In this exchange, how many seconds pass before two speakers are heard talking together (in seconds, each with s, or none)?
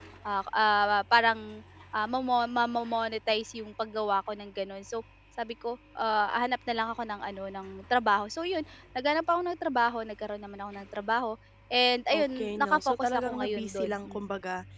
12.1 s